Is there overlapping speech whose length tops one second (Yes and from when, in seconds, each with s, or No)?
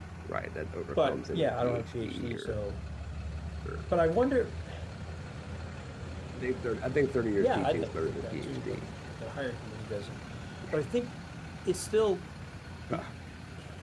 Yes, from 1.0 s